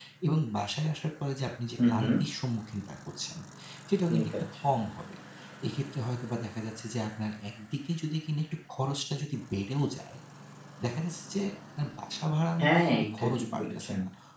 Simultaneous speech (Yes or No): Yes